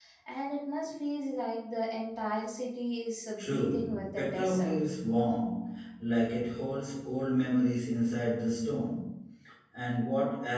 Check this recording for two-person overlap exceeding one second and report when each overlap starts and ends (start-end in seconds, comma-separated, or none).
3.4-4.7